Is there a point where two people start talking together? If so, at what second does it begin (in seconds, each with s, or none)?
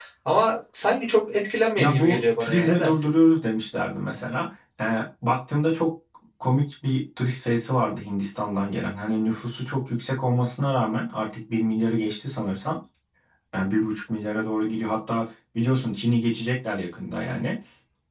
1.8 s